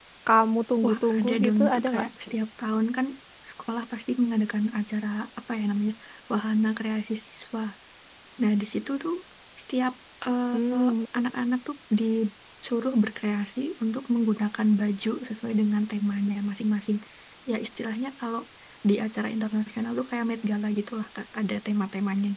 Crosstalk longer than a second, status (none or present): present